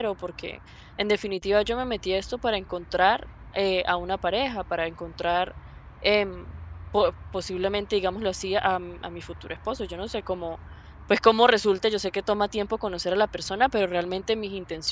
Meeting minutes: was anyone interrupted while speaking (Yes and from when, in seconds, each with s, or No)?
No